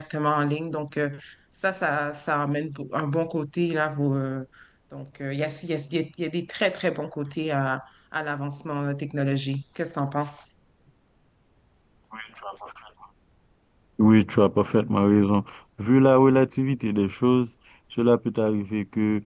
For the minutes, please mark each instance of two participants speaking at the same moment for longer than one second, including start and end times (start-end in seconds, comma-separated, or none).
none